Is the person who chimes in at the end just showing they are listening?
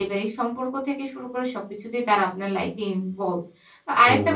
Yes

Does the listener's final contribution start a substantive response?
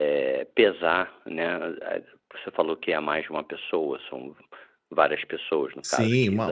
Yes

